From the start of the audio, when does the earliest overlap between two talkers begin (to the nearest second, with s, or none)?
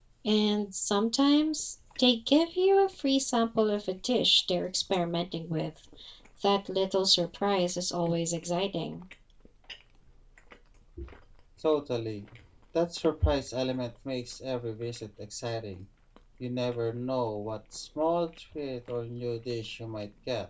none